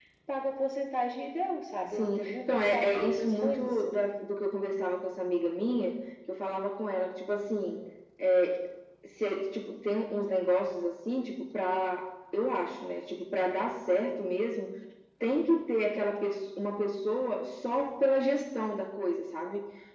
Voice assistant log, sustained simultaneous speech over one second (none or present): present